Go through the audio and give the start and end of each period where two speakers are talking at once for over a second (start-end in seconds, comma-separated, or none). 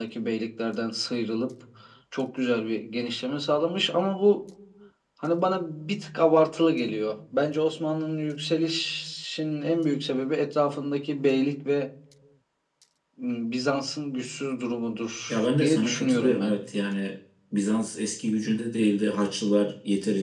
15.3-16.6